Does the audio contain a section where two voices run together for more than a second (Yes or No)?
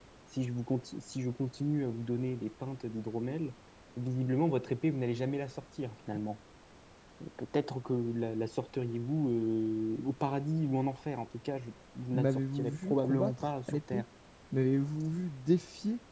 Yes